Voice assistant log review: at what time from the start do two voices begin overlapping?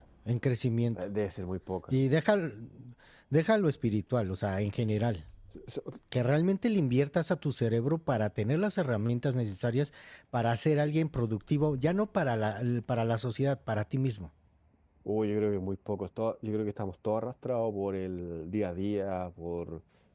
none

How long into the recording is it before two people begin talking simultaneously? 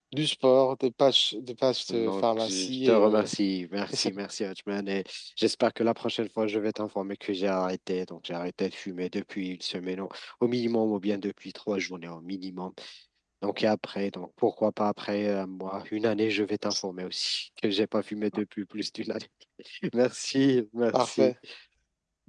1.9 s

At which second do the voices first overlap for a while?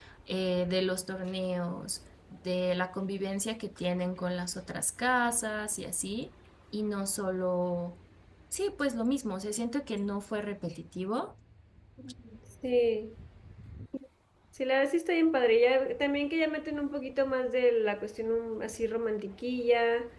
none

